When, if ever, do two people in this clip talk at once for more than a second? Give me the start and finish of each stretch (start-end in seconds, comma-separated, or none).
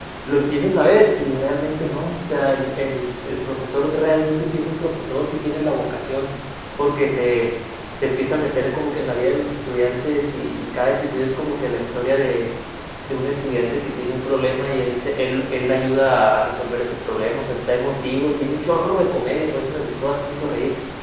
none